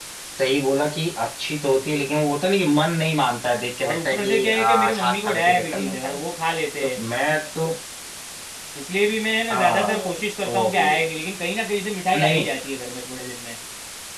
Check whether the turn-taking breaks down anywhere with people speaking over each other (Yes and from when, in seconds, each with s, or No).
Yes, from 3.8 s